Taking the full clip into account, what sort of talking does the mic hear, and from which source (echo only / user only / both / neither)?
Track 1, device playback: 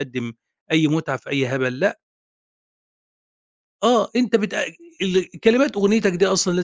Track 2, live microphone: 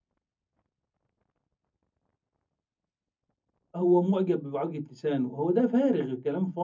user only